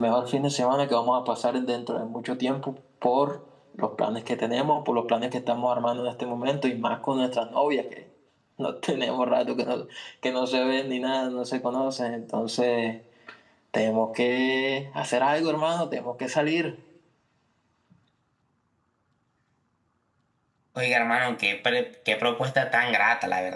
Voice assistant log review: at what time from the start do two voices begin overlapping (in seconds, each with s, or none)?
none